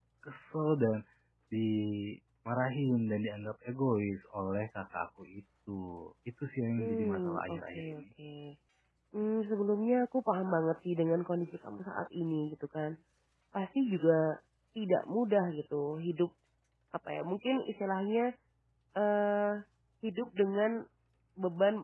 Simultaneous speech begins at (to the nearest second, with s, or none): 7 s